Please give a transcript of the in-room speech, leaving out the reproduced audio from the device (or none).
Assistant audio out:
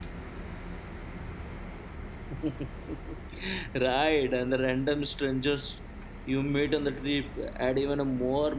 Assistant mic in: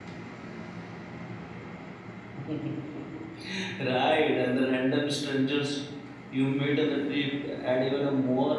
none